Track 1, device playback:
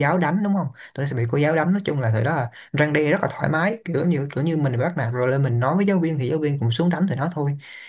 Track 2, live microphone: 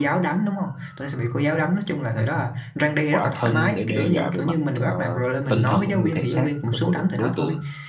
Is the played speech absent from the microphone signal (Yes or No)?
No